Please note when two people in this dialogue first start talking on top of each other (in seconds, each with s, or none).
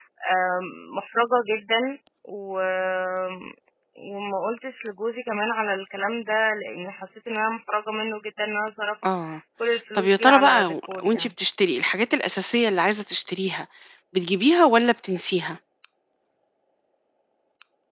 9.9 s